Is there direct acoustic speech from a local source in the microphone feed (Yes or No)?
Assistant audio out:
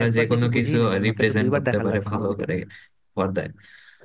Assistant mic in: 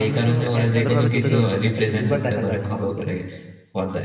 Yes